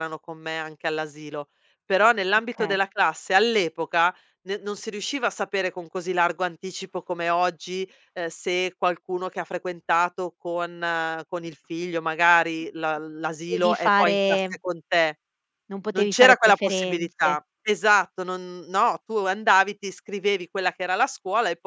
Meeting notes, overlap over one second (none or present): present